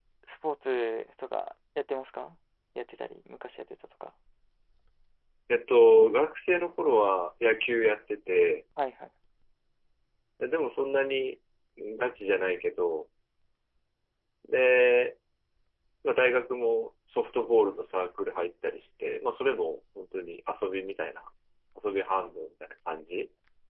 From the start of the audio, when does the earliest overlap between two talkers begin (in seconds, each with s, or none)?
none